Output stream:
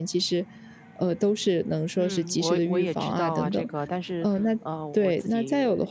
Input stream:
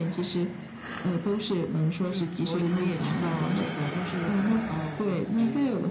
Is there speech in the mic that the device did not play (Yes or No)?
No